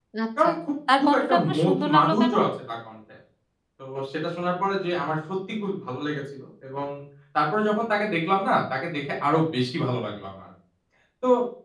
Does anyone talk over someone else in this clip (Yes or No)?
Yes